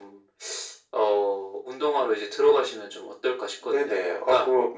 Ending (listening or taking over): taking over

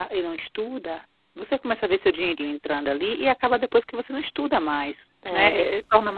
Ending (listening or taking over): taking over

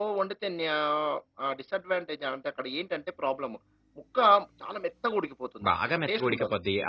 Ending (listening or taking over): taking over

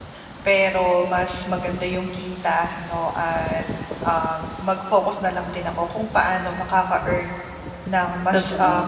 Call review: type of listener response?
listening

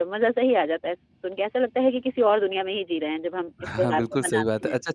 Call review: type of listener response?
taking over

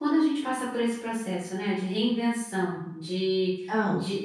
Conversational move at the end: listening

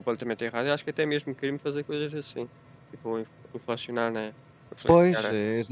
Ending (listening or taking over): taking over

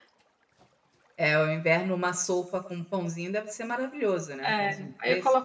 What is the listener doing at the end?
taking over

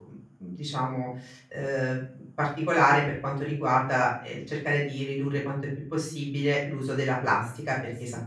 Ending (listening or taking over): listening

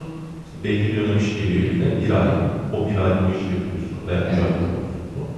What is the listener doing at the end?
listening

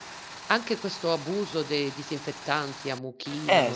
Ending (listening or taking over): listening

